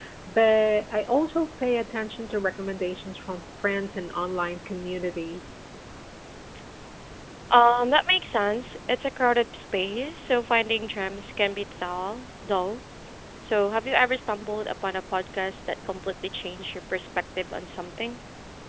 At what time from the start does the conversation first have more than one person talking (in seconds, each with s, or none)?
none